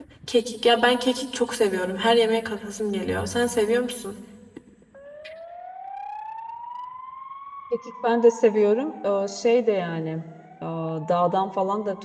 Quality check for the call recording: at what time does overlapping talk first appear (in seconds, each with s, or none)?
none